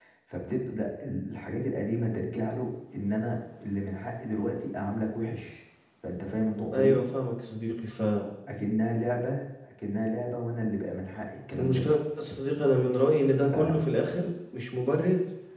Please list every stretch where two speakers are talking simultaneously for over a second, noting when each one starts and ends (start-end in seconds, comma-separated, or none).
none